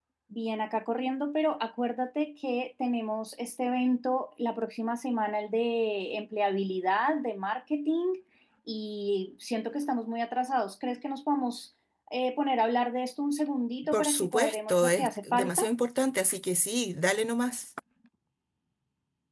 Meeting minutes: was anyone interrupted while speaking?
Yes, from 13.9 s

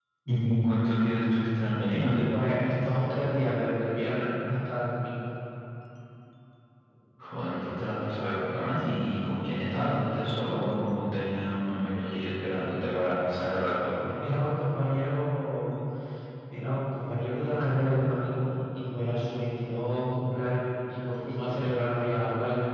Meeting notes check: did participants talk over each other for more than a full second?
No

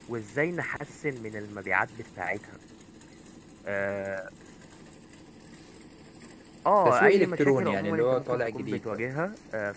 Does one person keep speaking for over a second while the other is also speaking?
Yes, from 6.8 s

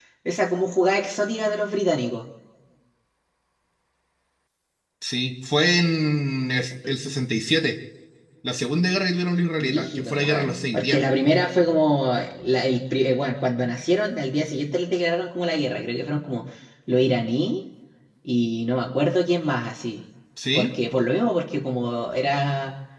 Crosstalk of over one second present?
Yes, from 9.6 s

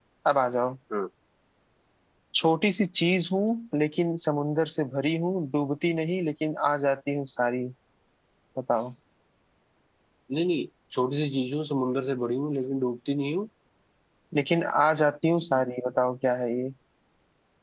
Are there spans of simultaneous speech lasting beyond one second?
No

